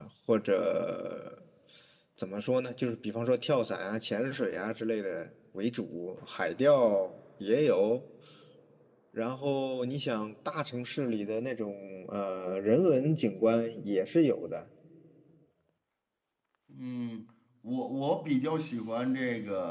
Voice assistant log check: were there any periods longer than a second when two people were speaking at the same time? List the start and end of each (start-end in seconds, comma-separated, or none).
none